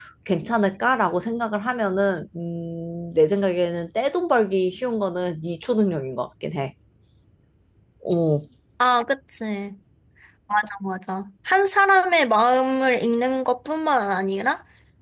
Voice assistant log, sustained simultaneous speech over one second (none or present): none